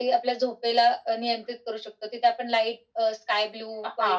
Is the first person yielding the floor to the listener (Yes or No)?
Yes